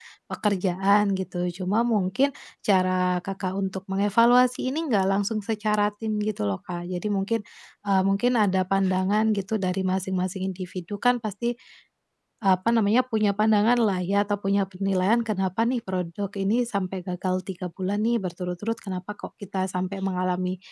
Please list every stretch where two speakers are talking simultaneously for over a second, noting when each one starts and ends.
none

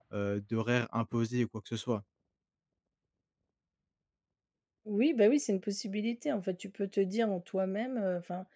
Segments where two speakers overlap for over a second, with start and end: none

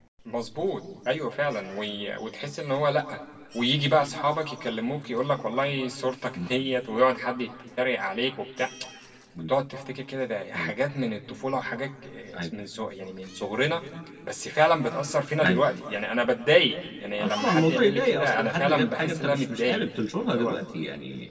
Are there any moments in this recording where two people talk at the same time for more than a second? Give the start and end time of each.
17.2-19.8

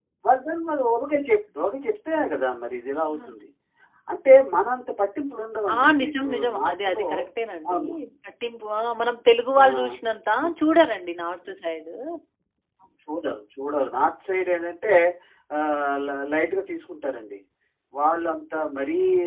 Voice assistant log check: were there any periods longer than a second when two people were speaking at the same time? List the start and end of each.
5.7-7.0

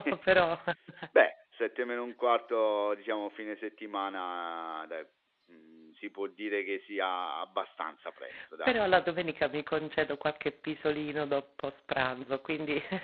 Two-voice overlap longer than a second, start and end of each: none

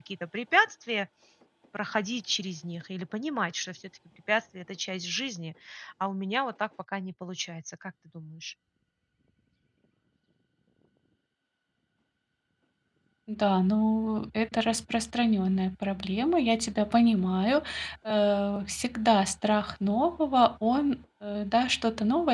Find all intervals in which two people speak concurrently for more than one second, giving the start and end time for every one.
none

